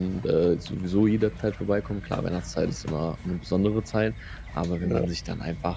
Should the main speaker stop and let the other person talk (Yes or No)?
No